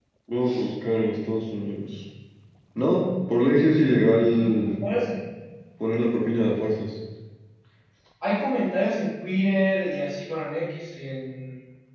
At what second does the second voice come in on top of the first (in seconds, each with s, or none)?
none